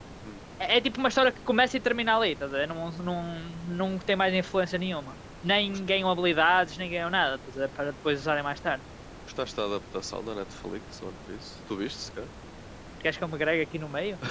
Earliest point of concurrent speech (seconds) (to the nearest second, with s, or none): none